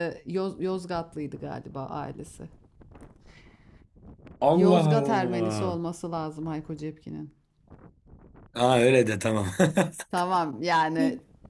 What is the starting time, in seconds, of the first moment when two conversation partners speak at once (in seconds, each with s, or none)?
4.5 s